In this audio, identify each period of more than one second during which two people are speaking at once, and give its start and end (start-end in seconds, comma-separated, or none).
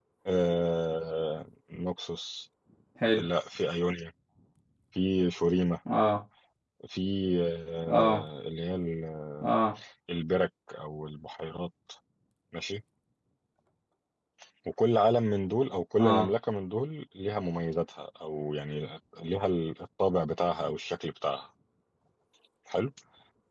none